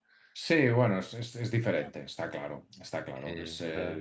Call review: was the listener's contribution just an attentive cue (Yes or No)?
Yes